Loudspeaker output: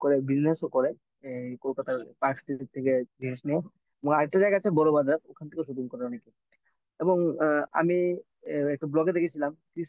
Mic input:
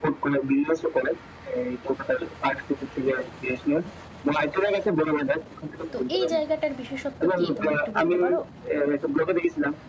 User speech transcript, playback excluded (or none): তো এই জায়গাটার বিশেষত্ব কি তুমি একটু বলতে পারো